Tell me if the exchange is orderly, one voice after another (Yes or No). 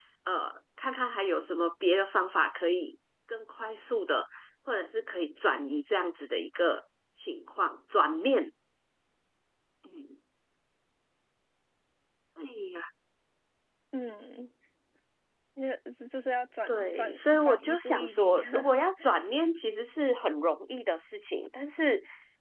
No